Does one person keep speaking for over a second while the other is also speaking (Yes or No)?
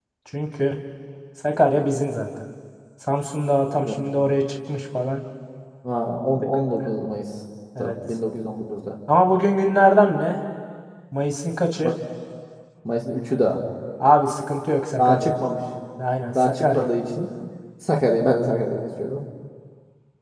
No